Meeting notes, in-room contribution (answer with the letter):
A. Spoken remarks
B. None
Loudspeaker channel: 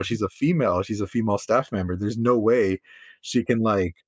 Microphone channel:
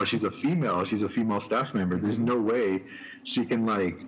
A